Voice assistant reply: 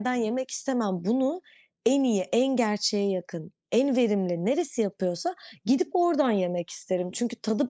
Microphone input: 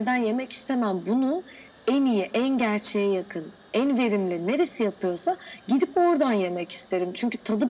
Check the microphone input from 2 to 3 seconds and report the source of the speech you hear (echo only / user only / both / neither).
echo only